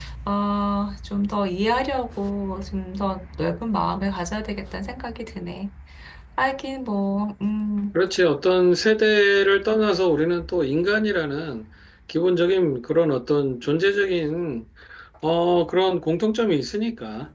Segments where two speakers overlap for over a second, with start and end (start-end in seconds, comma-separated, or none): none